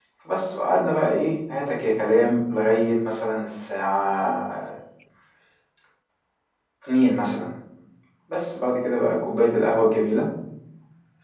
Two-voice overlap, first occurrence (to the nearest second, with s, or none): none